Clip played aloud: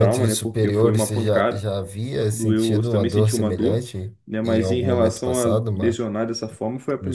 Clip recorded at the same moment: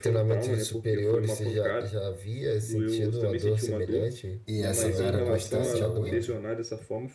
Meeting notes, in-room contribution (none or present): present